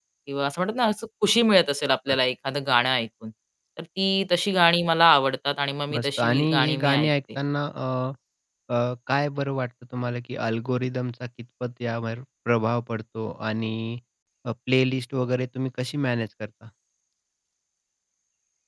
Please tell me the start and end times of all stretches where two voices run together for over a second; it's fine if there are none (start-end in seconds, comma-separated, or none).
6.0-7.4